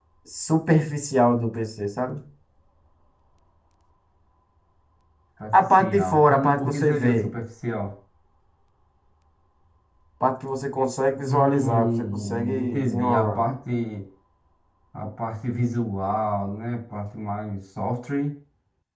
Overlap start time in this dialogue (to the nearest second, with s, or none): 6 s